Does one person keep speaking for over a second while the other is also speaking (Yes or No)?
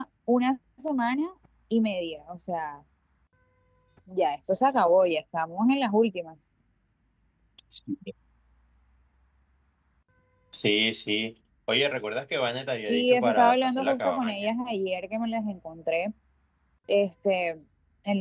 Yes